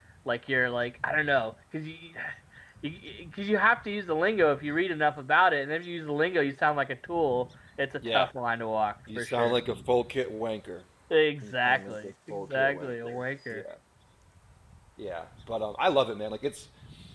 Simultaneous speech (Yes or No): Yes